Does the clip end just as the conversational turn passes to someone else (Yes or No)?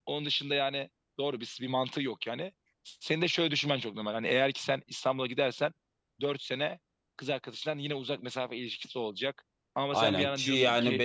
Yes